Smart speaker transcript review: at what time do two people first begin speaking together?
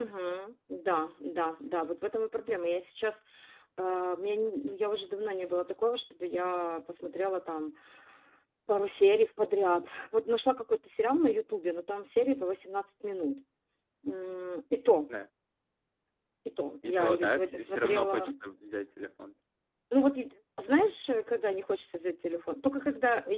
16.9 s

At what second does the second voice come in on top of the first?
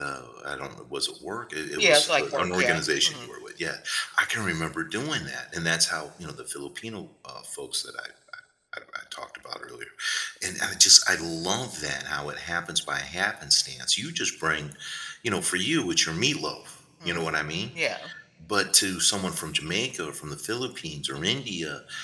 1.8 s

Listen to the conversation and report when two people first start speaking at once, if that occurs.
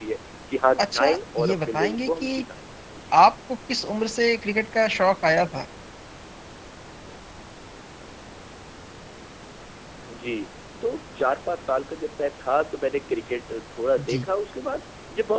0.8 s

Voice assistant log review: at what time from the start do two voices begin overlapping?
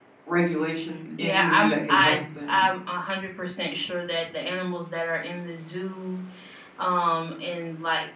1.2 s

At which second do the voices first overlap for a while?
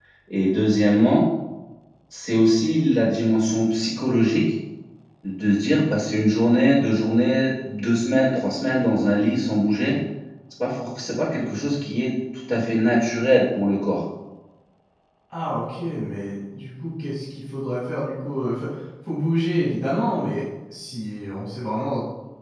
none

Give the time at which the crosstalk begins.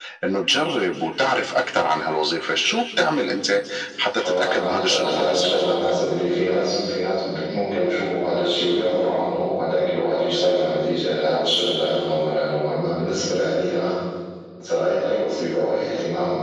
4.2 s

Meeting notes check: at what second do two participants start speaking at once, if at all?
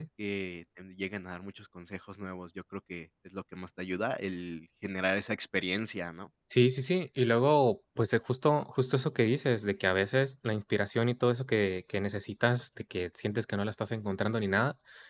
none

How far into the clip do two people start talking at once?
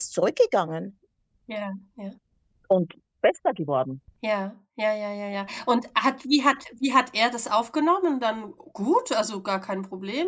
none

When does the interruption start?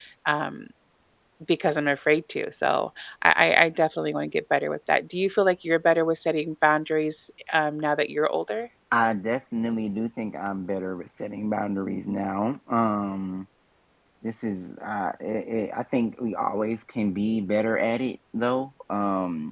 none

